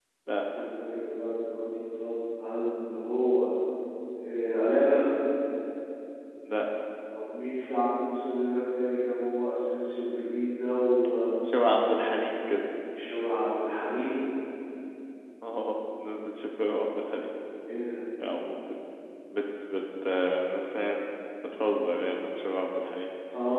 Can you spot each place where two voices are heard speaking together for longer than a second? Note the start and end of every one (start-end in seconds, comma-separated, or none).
none